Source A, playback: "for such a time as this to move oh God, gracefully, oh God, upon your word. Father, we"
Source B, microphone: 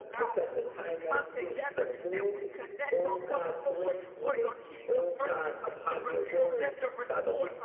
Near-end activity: present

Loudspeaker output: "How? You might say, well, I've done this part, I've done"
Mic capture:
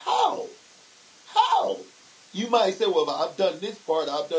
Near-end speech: none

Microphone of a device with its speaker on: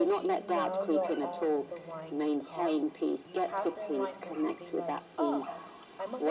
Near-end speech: present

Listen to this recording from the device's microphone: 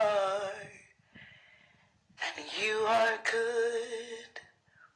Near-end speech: none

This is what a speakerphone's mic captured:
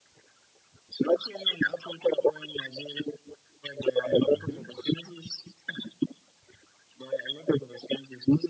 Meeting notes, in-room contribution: present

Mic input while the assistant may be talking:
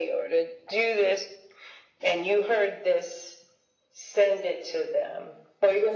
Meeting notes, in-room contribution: none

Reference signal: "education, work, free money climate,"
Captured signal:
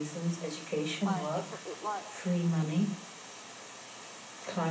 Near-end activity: present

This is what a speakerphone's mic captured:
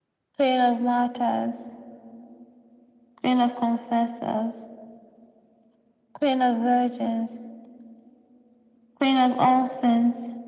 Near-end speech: none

